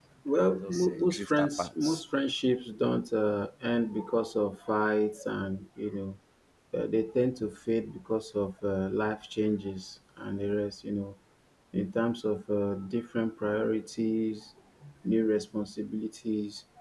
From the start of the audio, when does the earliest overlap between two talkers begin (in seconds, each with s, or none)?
0.6 s